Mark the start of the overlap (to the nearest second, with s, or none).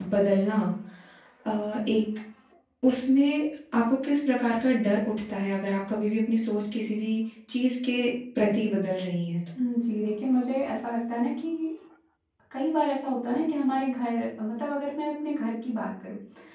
none